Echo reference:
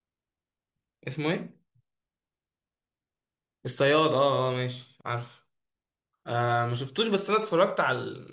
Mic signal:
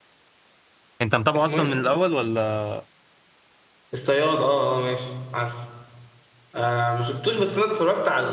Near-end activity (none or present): present